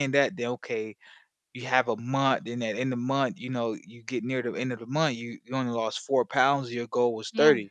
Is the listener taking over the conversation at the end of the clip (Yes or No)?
No